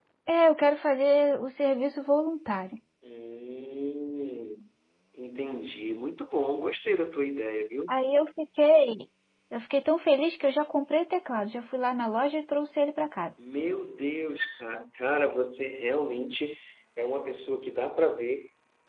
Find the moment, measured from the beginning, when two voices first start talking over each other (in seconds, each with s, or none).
none